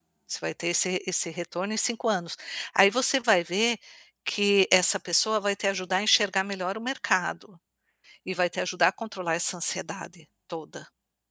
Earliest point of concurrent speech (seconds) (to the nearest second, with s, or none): none